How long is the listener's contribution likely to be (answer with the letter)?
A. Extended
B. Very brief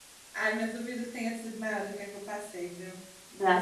A